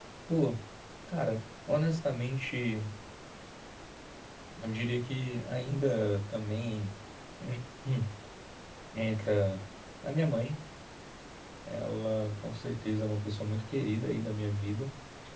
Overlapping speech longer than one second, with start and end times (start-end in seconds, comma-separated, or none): none